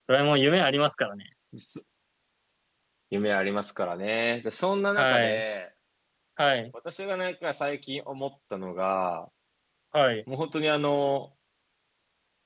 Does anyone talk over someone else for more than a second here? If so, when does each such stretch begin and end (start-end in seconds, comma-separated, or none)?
none